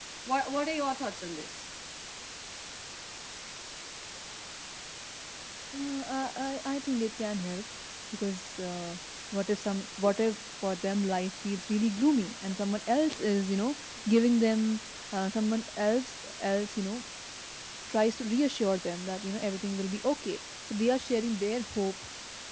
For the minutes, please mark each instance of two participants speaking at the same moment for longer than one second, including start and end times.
none

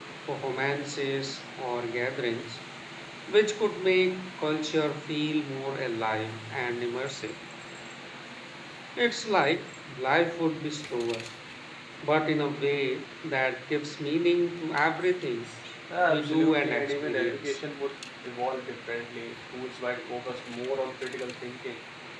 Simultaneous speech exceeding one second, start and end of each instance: 16.1-17.6

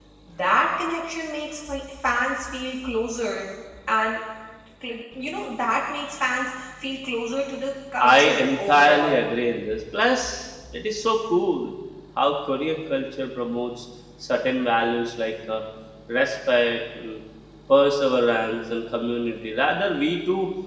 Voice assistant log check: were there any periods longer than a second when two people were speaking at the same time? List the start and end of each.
8.0-9.2

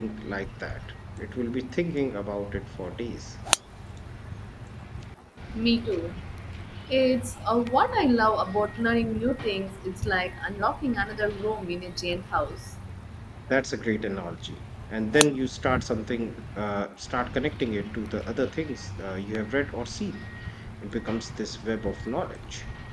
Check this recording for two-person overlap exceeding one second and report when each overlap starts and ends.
none

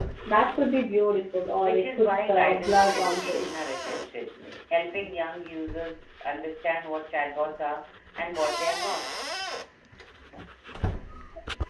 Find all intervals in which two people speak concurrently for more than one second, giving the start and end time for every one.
1.6-3.6

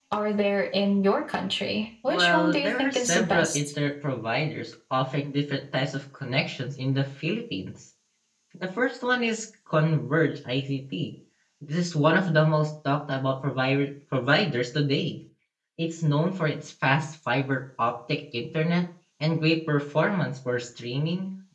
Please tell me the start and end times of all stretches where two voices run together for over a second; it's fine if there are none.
2.1-3.7

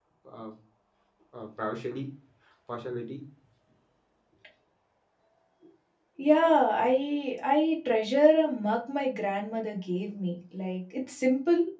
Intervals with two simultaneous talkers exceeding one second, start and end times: none

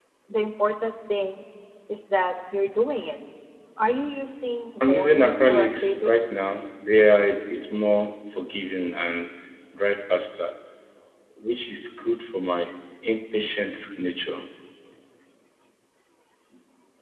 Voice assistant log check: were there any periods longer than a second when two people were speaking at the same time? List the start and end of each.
4.8-6.4

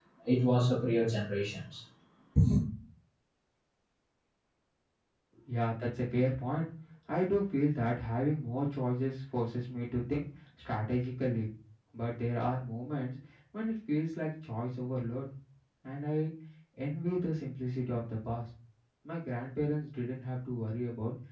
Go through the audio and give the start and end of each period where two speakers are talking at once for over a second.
none

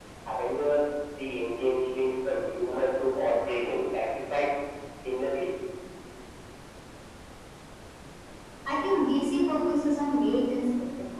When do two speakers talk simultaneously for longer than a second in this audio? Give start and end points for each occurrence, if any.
none

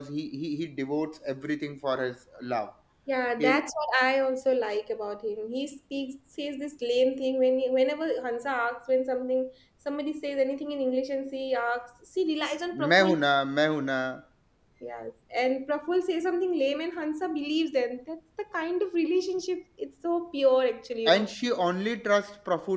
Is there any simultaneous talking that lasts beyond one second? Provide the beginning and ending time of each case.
none

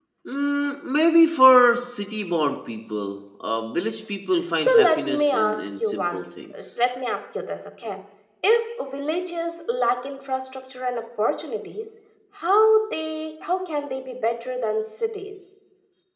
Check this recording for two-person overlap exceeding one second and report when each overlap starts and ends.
4.6-6.2

